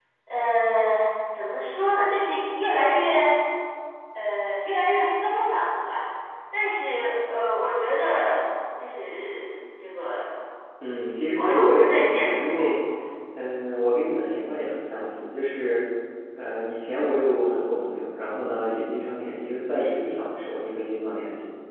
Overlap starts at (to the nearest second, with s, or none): 11 s